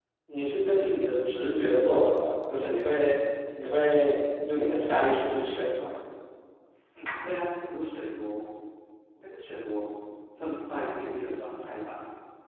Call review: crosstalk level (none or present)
none